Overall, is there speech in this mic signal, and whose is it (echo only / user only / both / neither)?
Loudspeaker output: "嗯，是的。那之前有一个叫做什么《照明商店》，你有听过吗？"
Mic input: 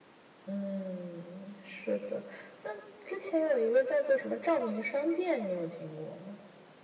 echo only